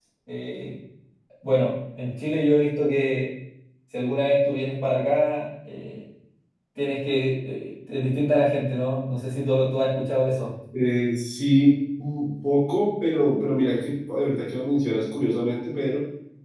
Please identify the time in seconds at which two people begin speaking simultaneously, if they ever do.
none

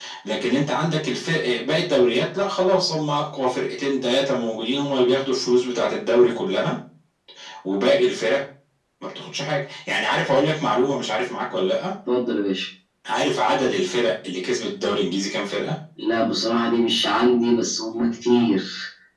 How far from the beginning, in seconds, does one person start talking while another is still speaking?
none

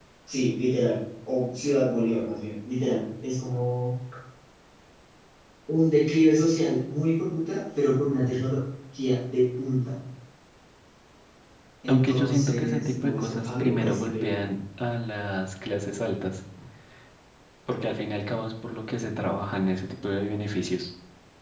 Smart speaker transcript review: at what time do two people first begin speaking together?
11.9 s

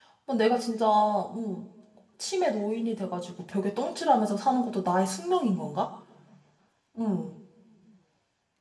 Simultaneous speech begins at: none

